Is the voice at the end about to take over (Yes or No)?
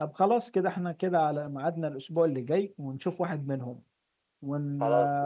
No